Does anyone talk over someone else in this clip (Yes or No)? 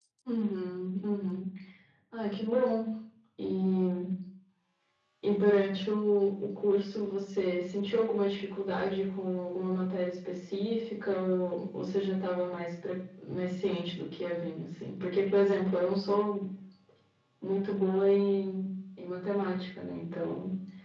No